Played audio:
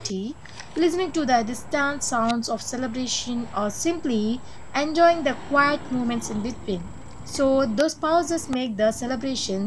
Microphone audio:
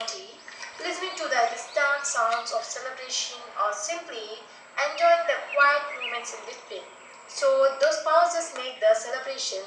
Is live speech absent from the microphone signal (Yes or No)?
Yes